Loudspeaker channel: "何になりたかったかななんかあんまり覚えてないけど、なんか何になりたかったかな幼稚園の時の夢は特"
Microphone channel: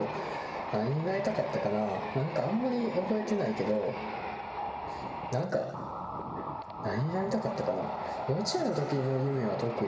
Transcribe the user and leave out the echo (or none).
none